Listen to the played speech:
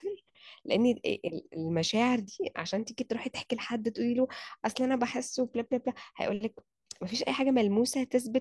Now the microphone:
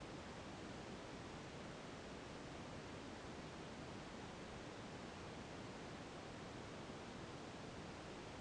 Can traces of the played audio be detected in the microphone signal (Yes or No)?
No